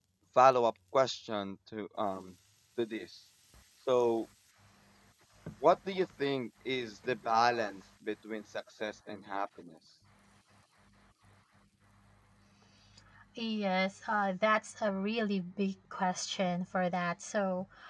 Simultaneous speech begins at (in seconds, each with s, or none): none